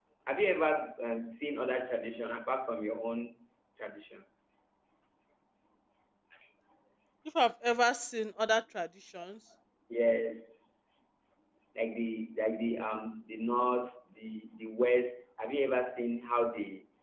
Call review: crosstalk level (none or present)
none